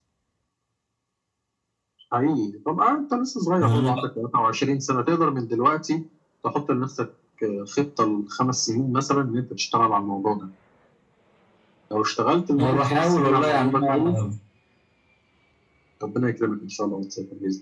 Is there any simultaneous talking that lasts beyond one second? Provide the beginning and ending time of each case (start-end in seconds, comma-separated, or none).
12.6-14.1